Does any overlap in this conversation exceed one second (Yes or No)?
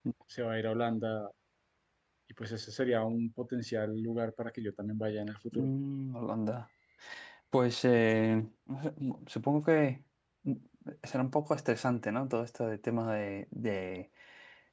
No